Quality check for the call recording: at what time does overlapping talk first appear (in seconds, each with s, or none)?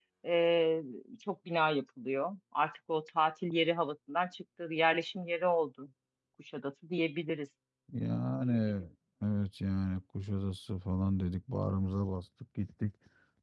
none